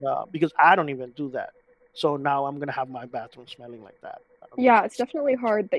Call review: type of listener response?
taking over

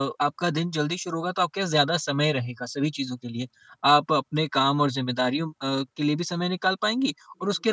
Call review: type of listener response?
listening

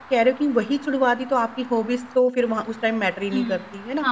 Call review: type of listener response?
taking over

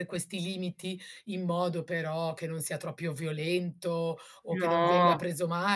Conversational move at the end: listening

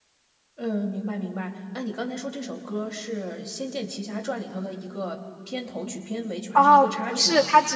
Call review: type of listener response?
taking over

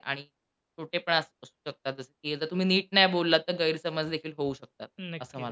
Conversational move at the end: taking over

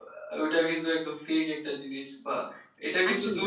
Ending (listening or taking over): listening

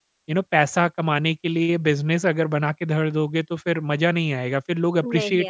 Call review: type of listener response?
listening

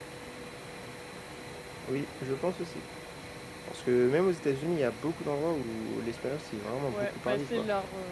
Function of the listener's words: taking over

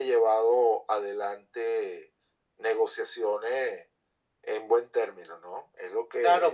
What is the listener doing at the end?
taking over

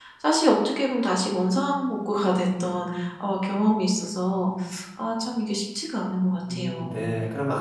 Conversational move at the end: taking over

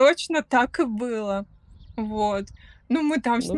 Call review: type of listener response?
listening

